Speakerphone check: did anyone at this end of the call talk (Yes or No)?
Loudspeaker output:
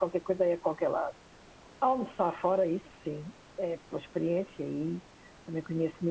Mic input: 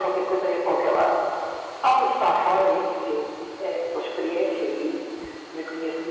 No